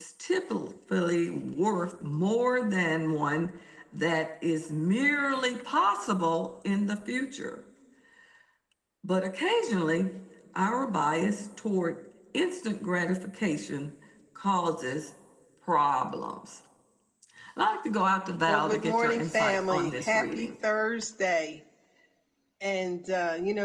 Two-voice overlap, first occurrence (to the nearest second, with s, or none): 18 s